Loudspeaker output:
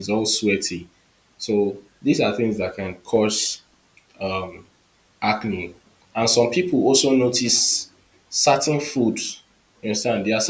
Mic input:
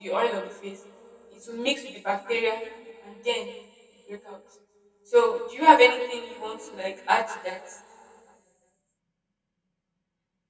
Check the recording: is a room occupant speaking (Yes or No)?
Yes